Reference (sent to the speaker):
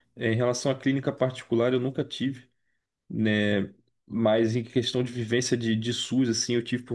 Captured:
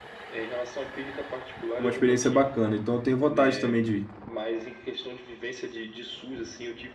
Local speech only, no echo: é uma experiência bacana. Então eu tenho vontade também de,

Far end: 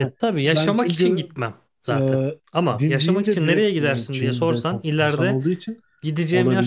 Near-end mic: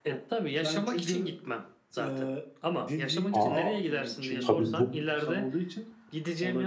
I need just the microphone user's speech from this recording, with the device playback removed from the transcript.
Aa, tabii

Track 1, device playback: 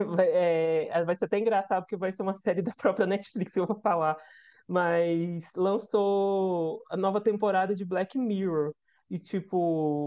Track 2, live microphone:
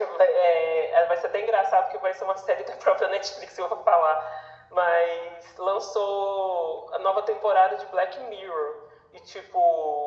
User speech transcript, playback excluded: none

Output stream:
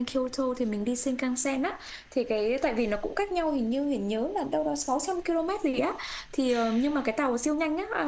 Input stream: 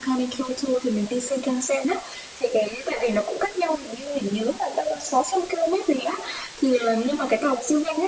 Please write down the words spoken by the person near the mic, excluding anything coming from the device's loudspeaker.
none

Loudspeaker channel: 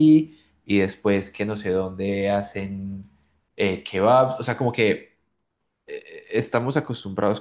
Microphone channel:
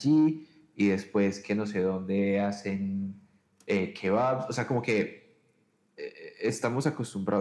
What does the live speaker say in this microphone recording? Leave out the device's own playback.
none

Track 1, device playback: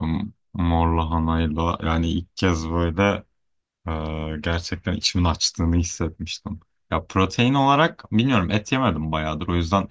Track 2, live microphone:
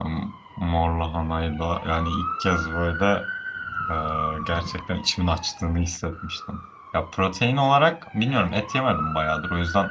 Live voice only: none

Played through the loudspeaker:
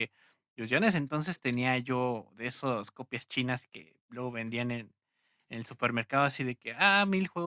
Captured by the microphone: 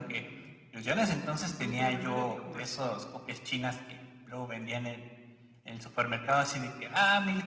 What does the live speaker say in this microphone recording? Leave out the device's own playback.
empecemos con la primera que jugaste.

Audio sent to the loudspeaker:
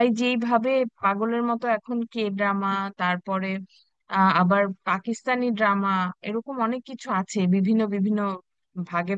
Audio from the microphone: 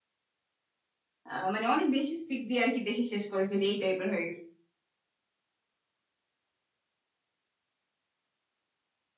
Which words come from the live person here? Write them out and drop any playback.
আহ, মানে অনেক বেশি স্পিড দিয়ে আর কি দেখে শেষ করে ফেলি এই টাইপের হয়ে গেছে

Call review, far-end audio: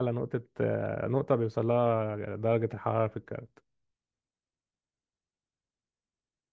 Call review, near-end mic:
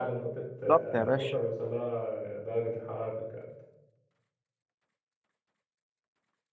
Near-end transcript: بالظبط يا باشا

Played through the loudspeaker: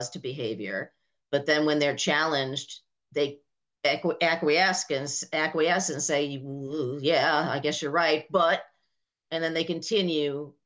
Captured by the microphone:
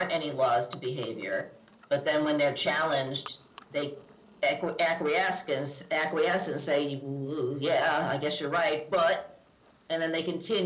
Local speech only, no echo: none

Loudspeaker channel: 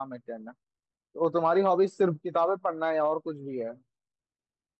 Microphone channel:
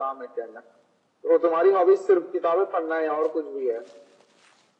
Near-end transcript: none

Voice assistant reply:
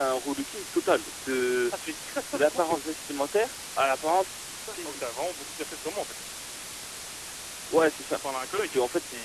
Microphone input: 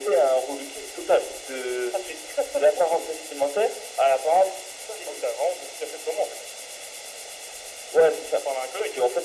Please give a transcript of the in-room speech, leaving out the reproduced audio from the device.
none

